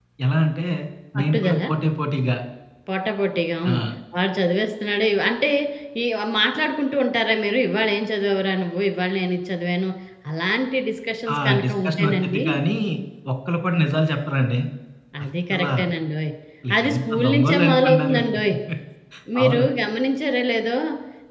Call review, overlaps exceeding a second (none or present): present